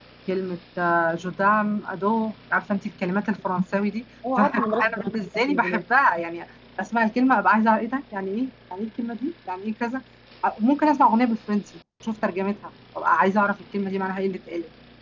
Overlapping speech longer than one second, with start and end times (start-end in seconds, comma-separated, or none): 4.4-5.8